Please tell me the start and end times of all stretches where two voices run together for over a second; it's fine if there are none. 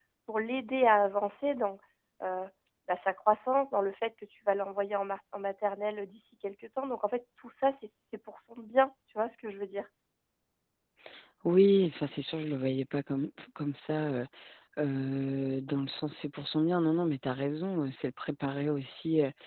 none

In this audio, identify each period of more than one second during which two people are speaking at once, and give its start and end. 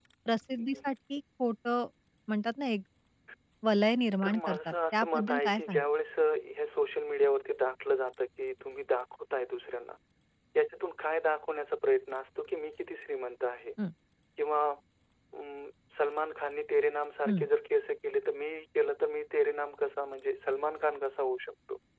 4.2-5.8

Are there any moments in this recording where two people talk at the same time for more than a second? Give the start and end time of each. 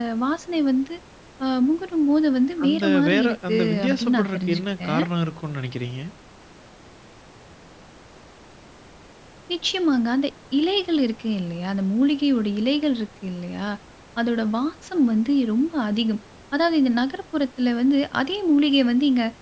2.6-5.0

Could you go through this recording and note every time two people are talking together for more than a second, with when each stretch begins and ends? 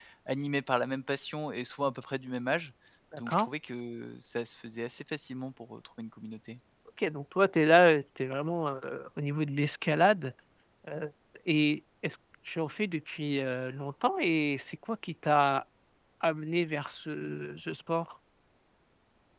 none

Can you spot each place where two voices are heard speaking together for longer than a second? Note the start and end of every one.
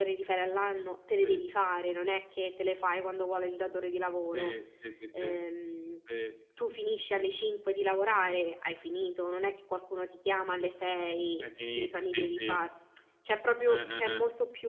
11.4-12.6

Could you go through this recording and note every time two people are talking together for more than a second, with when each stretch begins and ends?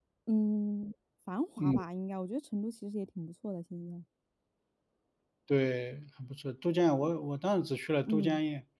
none

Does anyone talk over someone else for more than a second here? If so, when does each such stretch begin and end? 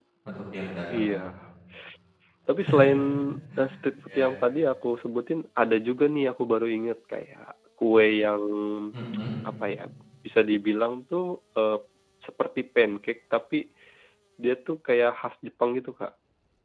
none

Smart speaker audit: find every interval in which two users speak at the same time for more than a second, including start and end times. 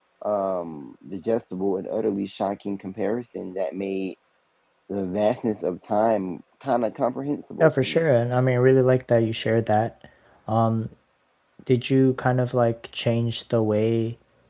none

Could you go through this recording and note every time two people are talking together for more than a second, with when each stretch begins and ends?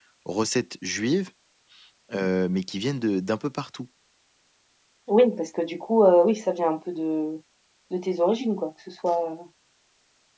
none

